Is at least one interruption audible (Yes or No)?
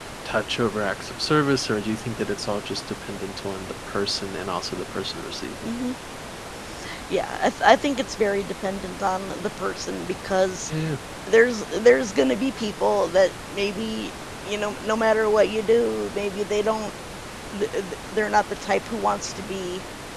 No